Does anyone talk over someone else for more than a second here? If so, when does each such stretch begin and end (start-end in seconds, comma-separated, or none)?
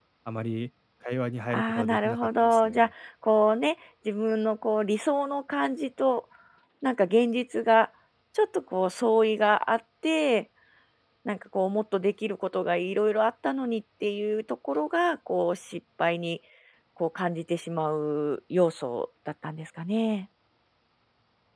1.5-2.9